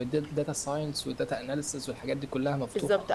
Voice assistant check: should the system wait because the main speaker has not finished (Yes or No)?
No